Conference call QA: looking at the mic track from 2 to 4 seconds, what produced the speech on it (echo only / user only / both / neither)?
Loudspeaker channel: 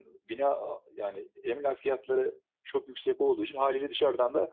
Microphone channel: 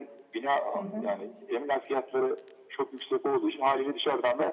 echo only